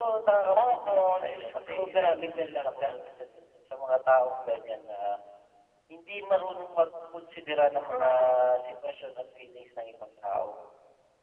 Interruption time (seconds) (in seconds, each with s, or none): 0.6 s